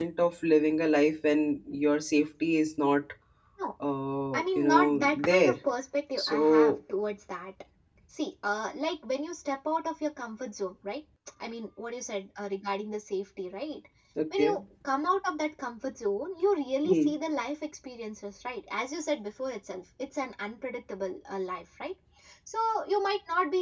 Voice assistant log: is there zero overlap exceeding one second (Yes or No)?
No